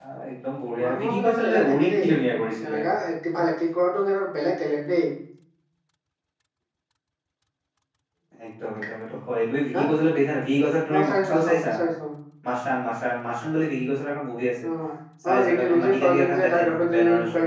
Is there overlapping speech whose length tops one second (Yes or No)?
Yes